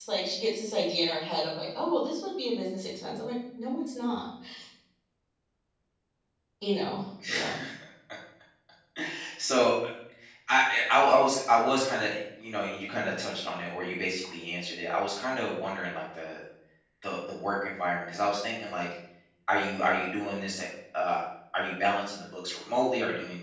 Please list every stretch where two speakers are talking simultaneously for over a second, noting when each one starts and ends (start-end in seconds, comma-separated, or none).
none